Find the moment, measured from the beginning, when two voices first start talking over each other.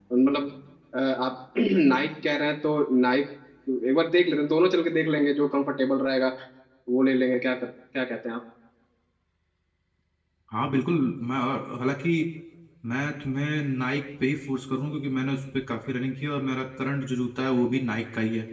none

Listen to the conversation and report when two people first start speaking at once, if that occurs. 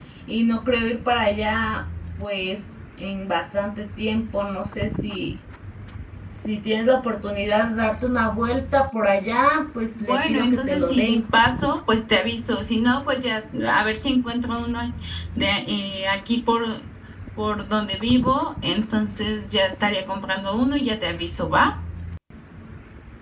9.9 s

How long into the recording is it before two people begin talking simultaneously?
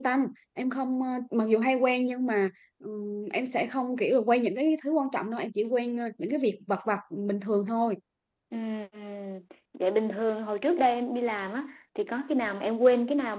none

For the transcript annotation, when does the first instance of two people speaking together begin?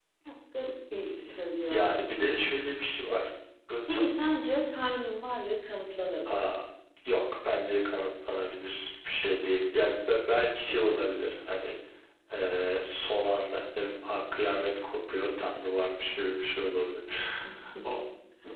1.1 s

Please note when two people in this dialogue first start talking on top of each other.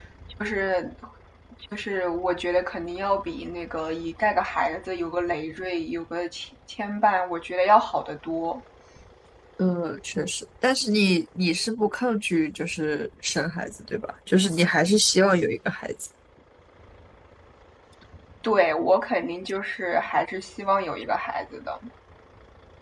none

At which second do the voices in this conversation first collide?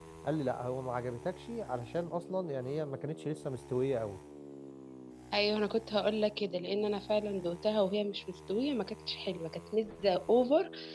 none

